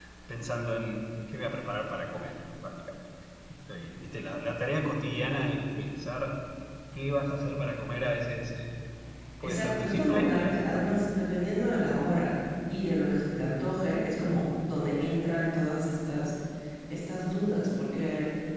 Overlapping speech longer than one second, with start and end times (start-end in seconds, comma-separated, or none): 9.4-10.7